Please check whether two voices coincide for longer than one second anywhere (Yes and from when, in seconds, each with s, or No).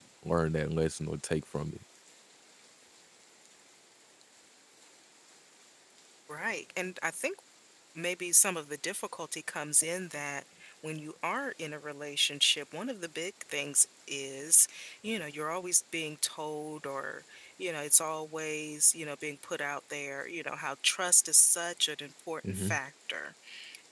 No